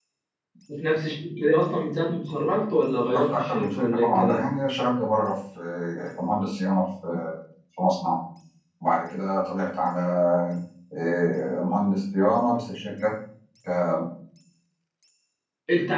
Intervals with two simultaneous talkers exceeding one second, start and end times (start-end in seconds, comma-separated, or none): 3.0-4.5